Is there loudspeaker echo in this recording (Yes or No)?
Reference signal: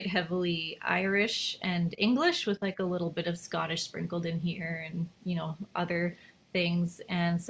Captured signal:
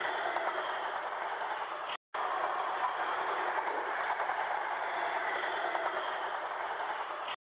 No